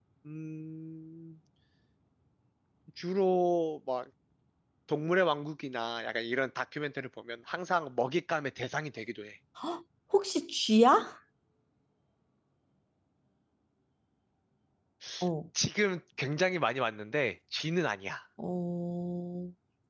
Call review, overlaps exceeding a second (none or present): none